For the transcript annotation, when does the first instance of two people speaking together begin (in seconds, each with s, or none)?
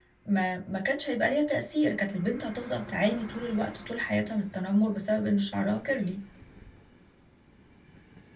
none